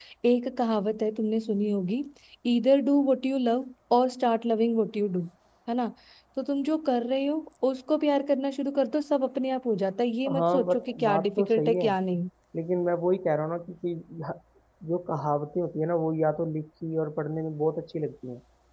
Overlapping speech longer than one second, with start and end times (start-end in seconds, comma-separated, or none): 10.3-11.9